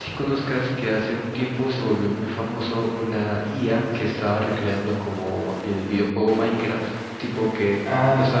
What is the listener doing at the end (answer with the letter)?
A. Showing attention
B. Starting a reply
A